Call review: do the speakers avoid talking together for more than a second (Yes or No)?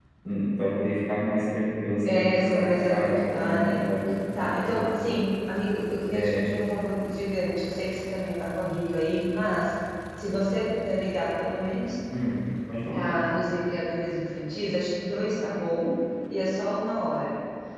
No